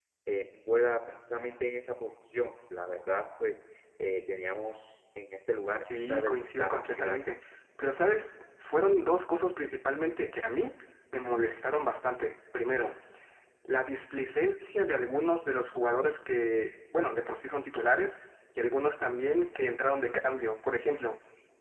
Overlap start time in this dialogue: 5.8 s

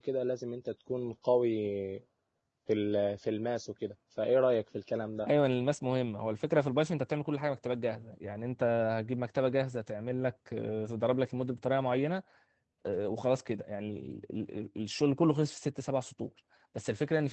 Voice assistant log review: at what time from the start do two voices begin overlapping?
none

